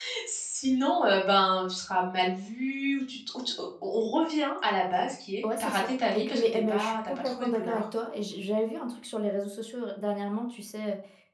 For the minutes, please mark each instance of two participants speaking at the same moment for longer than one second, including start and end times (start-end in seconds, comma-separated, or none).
5.4-7.8